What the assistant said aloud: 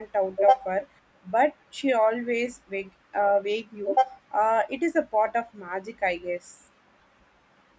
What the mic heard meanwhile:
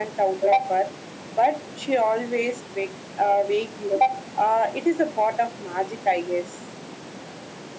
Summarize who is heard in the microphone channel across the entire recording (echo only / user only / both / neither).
echo only